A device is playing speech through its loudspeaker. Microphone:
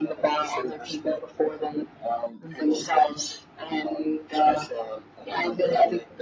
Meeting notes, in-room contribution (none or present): none